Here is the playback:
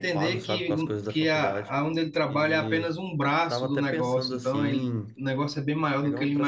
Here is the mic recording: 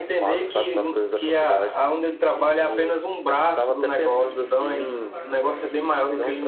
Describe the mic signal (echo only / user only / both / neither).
both